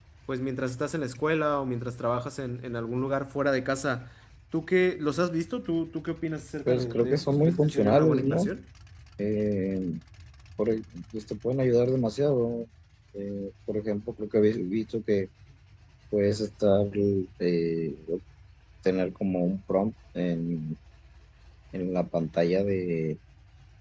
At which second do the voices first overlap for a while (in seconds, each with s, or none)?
6.7 s